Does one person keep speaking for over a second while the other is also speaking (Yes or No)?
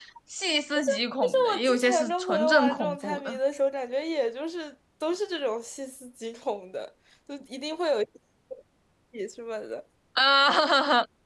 Yes